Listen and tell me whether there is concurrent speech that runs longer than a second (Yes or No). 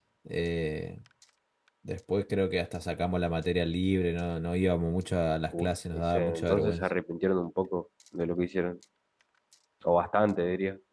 Yes